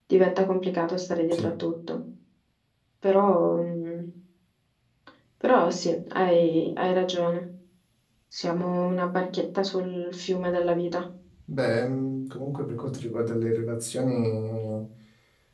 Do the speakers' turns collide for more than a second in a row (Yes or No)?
No